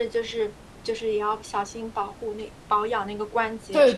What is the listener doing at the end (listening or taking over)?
taking over